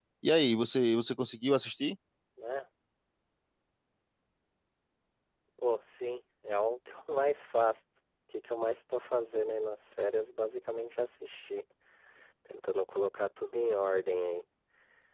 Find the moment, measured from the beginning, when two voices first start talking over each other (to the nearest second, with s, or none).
none